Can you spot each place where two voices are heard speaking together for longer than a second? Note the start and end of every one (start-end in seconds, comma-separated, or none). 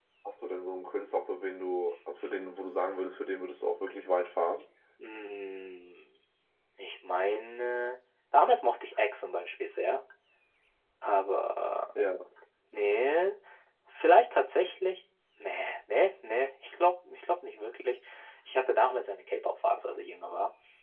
none